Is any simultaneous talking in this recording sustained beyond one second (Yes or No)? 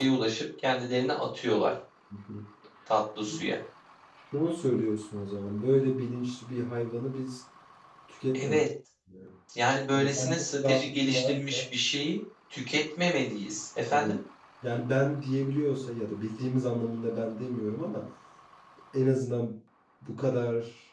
Yes